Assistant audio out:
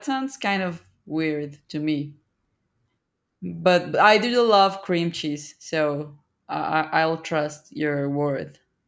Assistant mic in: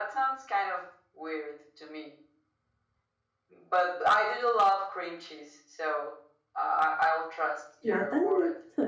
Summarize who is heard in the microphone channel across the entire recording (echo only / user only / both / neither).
both